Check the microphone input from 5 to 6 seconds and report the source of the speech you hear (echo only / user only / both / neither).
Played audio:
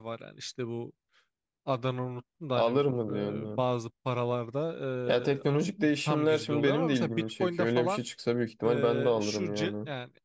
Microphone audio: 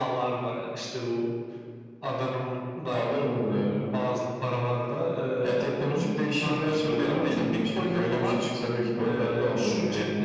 echo only